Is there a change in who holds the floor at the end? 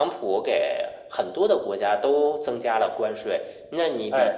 No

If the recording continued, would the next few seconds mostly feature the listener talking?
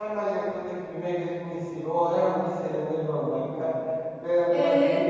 Yes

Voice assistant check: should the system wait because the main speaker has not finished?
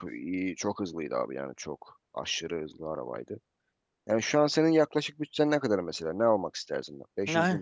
No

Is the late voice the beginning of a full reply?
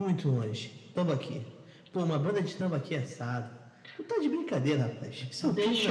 Yes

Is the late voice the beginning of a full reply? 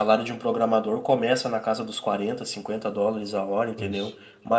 No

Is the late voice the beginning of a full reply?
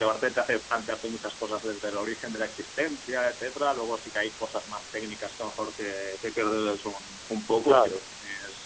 No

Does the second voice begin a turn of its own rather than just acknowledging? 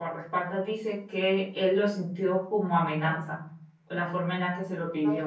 Yes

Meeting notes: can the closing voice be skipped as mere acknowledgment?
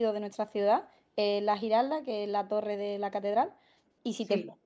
Yes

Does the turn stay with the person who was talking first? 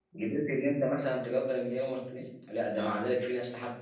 Yes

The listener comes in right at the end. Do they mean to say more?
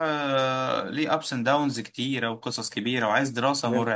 No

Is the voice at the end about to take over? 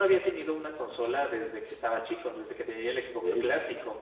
No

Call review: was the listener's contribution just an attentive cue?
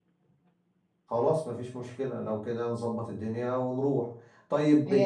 Yes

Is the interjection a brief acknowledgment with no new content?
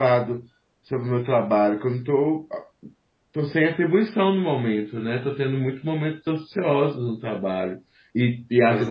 Yes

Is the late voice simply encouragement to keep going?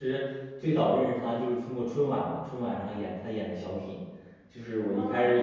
Yes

